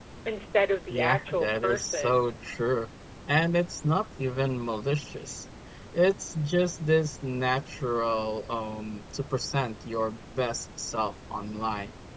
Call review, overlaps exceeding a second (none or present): present